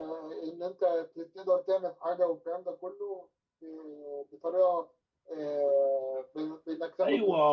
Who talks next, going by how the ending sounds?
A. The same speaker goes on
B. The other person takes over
B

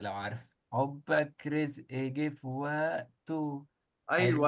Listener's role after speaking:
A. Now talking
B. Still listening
A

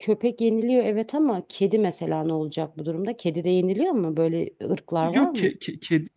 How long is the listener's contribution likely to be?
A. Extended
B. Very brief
A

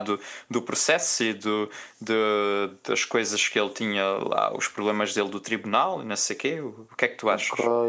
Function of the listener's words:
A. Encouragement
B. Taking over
B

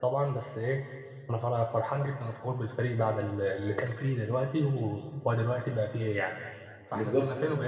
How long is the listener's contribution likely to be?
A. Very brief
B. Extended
B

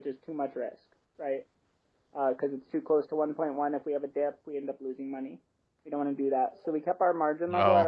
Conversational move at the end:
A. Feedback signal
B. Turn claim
A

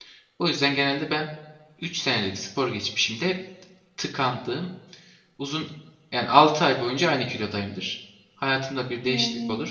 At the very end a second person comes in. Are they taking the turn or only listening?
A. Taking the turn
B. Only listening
B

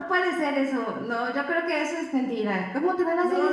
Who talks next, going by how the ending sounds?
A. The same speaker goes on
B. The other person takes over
B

